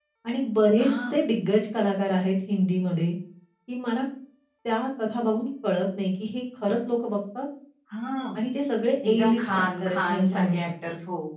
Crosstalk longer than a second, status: present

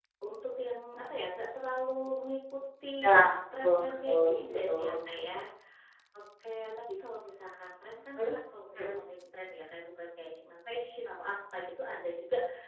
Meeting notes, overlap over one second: present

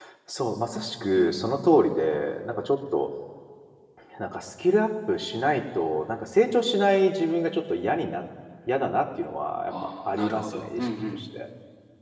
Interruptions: present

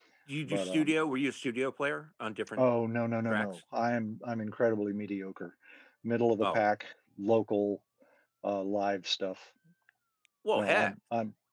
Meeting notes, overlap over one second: none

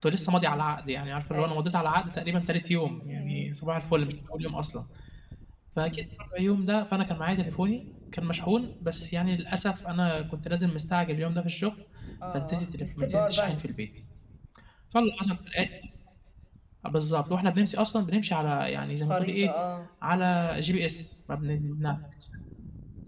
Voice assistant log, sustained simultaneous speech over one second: present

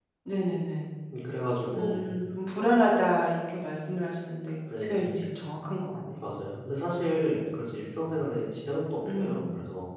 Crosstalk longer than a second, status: none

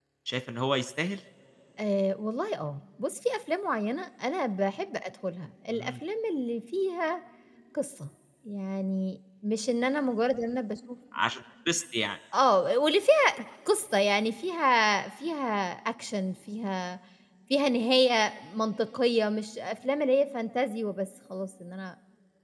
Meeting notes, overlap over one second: none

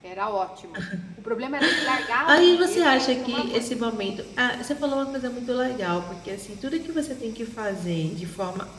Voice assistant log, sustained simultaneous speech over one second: present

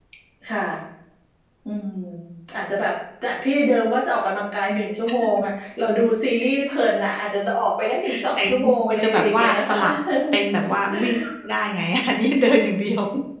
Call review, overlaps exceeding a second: present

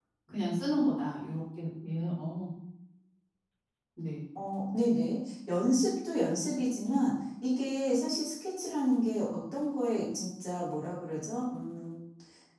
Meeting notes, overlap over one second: none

